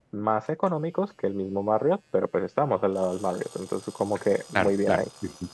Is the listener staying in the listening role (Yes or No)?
No